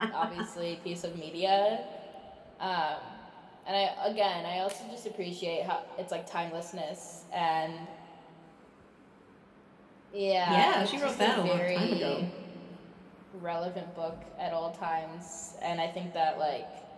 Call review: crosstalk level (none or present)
present